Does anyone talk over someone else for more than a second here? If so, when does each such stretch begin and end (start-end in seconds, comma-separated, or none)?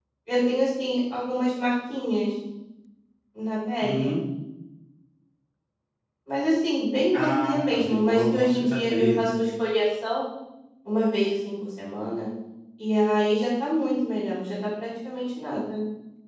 7.2-9.2